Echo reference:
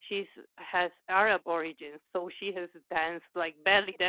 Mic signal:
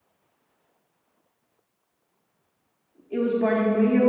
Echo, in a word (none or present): none